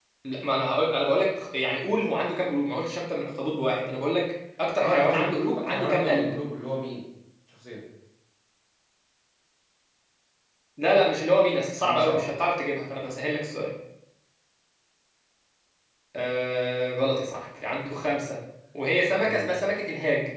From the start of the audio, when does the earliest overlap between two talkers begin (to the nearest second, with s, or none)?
5 s